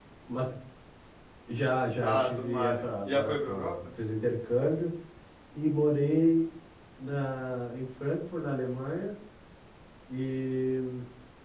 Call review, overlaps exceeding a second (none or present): present